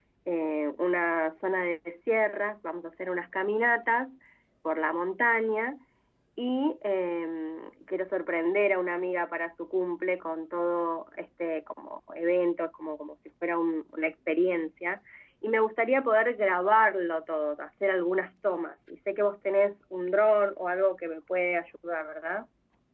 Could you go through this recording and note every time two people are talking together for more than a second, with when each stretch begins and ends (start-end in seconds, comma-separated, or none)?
none